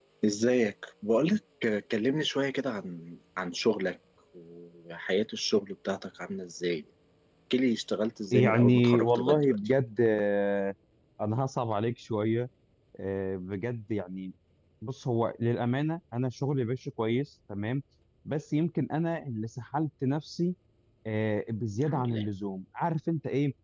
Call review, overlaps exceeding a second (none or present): present